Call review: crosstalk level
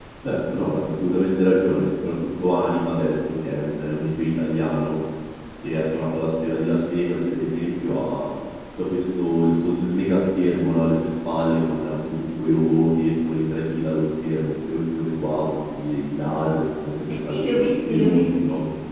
present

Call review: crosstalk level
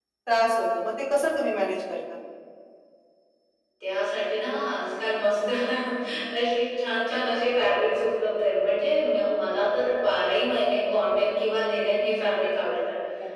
none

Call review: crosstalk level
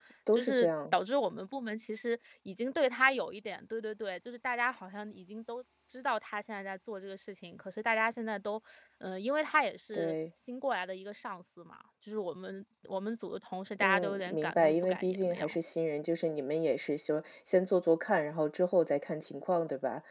present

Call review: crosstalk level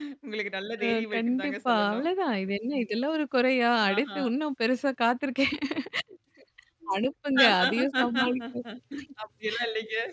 present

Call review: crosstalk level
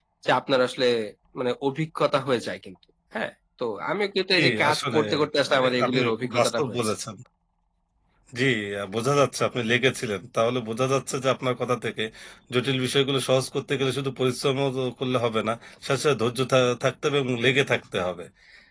present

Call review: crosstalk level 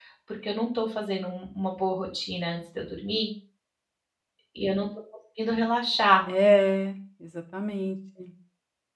none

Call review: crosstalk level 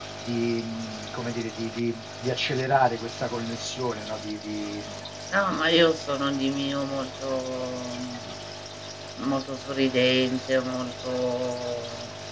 none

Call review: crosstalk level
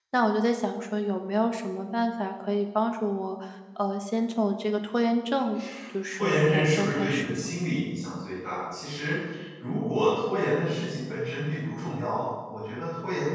present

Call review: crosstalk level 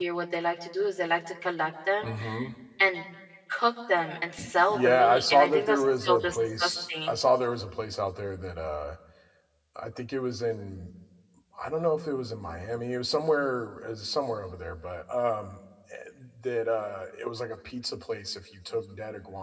present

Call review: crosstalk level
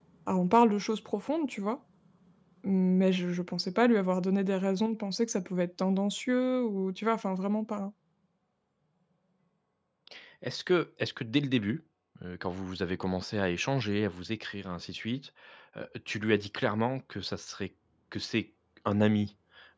none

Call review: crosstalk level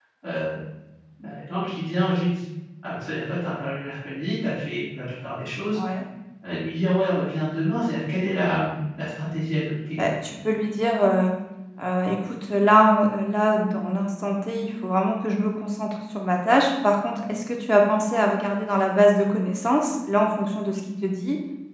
none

